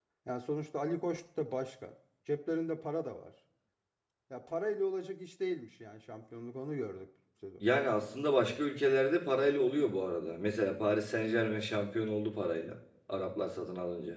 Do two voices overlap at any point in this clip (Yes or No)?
No